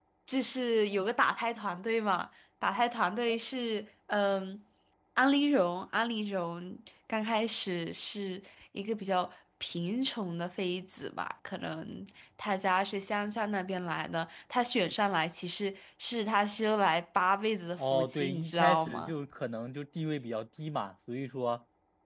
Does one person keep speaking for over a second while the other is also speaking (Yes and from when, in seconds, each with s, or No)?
Yes, from 17.8 s